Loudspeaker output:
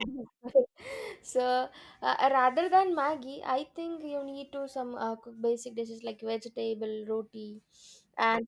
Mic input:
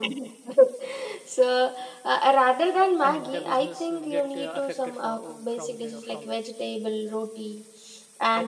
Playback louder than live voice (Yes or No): Yes